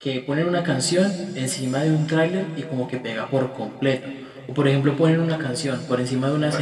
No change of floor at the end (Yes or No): Yes